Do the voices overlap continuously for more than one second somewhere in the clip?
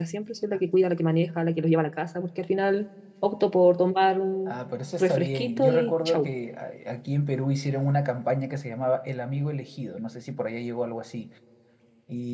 Yes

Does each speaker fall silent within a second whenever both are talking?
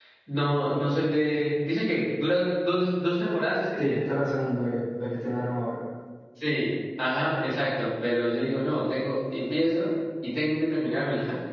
Yes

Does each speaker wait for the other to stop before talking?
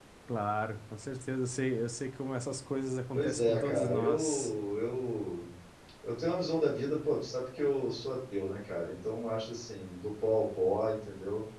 No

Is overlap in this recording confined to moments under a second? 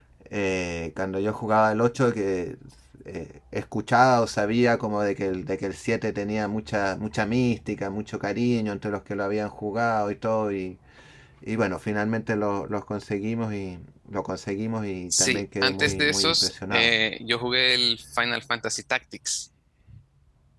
No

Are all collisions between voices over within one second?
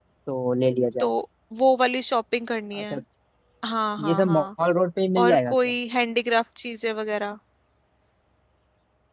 Yes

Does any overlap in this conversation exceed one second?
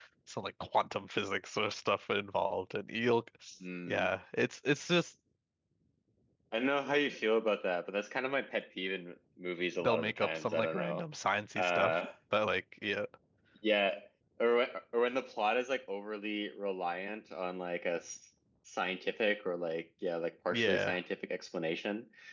Yes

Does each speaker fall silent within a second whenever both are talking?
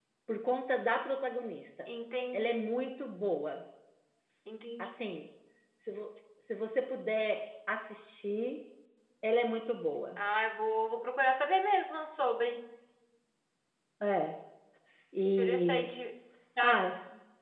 Yes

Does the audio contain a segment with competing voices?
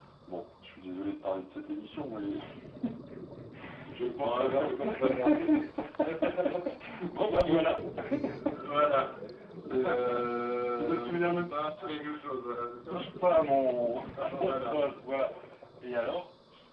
Yes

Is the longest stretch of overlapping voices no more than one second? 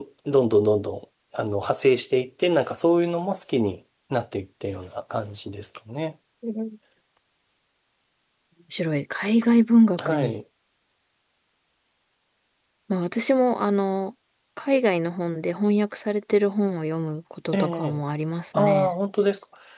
Yes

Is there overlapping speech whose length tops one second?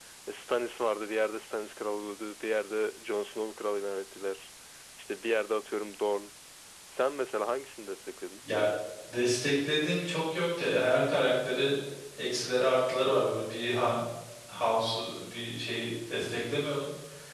No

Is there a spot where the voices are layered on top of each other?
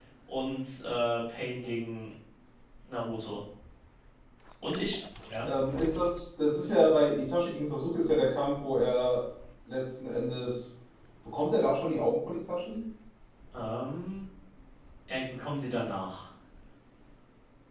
No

